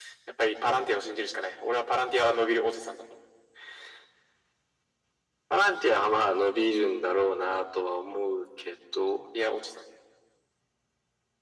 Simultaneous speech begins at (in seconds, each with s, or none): none